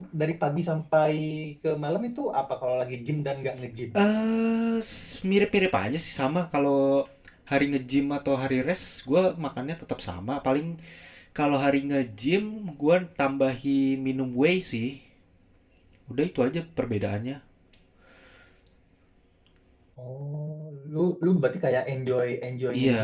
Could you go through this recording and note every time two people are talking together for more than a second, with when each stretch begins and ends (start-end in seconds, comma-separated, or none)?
none